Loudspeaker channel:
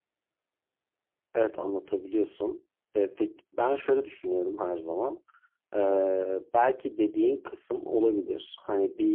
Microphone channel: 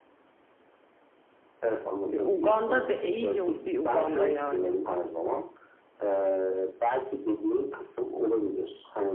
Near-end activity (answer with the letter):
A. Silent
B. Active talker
B